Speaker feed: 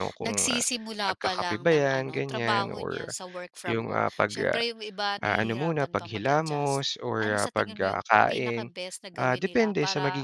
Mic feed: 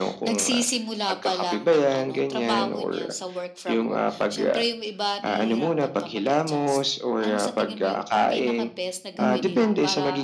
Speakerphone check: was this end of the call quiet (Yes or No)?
No